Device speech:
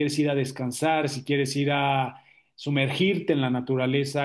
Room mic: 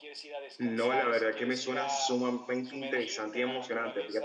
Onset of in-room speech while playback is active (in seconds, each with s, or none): 0.6 s